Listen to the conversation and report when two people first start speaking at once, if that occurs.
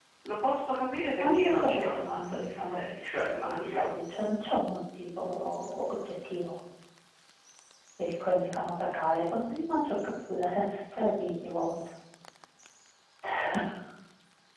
1.2 s

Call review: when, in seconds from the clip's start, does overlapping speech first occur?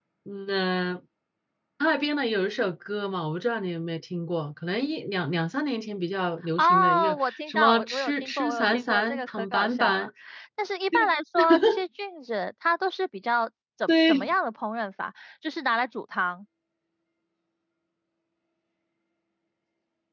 6.6 s

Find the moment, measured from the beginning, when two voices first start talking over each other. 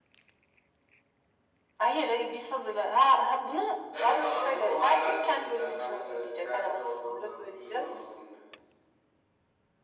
3.9 s

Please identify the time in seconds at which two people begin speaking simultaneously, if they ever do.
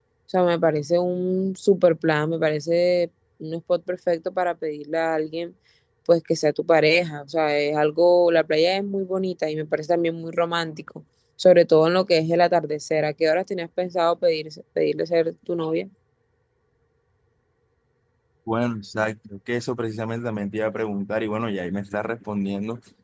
none

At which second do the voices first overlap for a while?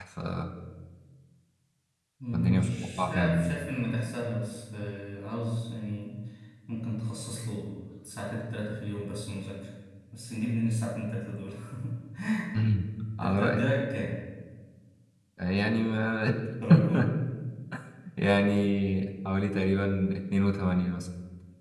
2.3 s

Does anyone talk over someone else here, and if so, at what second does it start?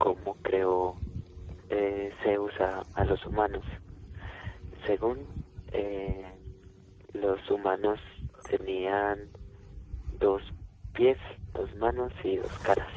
none

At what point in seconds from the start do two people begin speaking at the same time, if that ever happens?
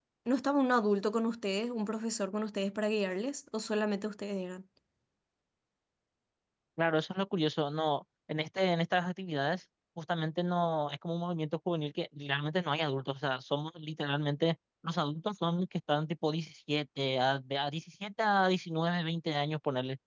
none

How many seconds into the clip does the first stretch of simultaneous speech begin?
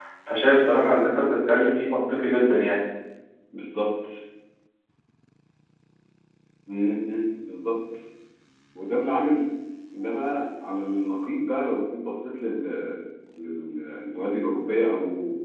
none

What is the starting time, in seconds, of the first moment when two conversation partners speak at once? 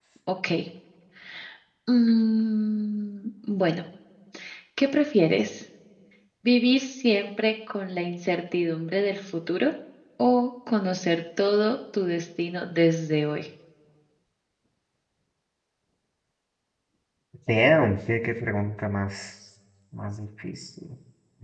none

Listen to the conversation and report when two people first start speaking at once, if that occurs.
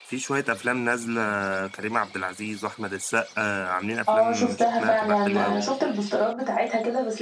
4.1 s

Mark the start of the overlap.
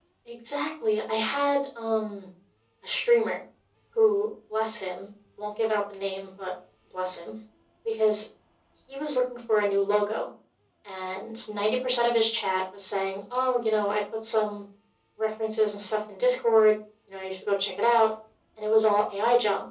none

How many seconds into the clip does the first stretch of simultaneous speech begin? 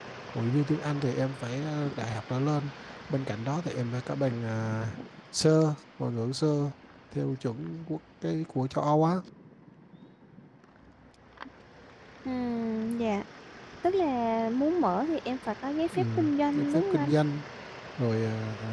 15.9 s

